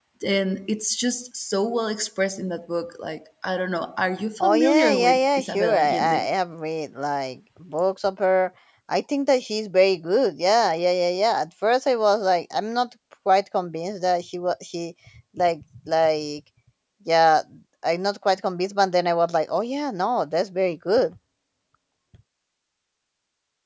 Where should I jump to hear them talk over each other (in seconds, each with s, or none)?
4.4 s